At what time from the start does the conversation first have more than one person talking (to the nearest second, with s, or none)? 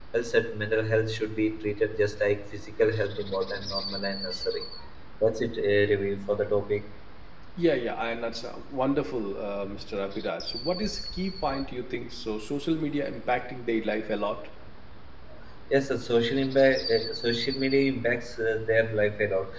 none